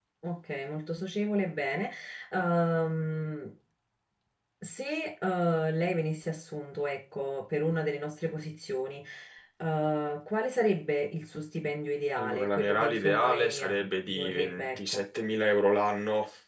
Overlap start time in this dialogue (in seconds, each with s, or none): 12.2 s